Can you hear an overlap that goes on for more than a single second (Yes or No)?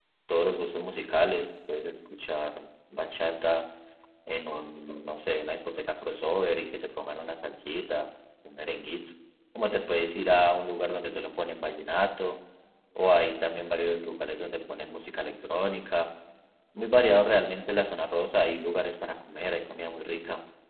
No